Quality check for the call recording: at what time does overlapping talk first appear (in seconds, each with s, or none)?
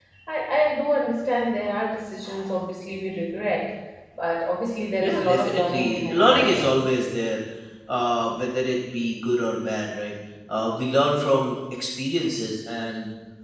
5.0 s